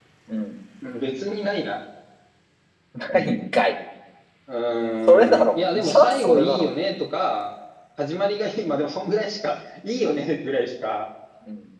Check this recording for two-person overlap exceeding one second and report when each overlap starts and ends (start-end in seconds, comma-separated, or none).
5.1-6.7